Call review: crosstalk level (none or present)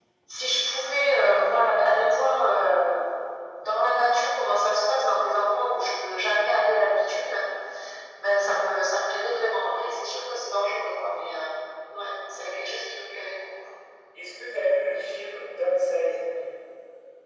none